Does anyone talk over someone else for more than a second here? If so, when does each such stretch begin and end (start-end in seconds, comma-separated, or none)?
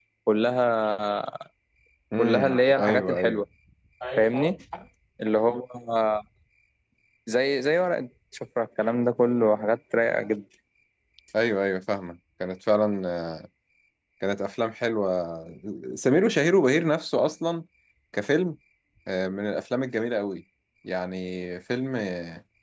2.2-3.4